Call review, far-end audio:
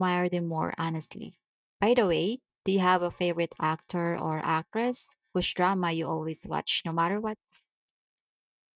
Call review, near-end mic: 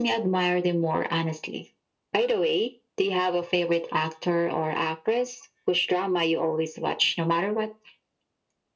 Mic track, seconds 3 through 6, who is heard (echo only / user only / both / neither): echo only